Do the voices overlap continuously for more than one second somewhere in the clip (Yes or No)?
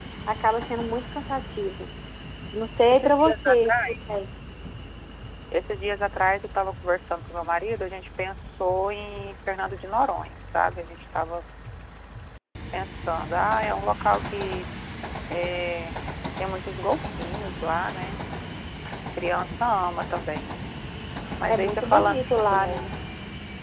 Yes